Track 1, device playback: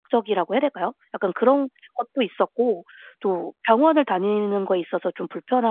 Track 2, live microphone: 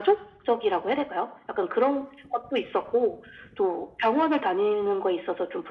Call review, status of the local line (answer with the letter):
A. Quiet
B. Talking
A